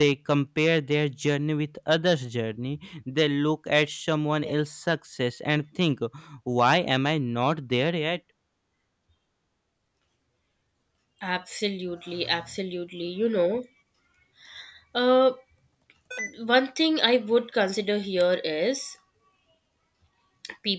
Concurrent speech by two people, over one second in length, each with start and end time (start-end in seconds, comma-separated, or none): none